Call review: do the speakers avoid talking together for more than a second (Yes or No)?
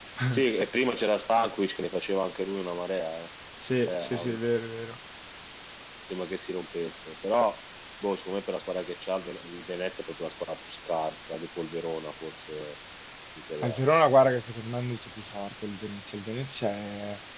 Yes